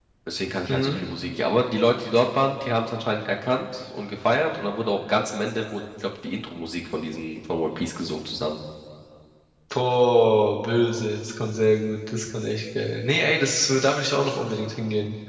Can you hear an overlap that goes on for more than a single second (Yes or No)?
No